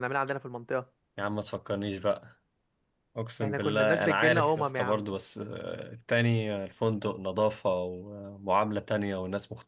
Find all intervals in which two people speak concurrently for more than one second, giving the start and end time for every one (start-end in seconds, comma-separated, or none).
3.4-5.1